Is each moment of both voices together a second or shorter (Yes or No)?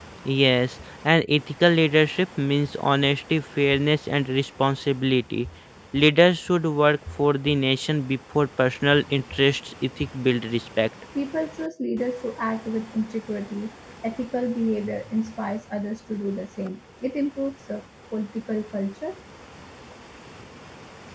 Yes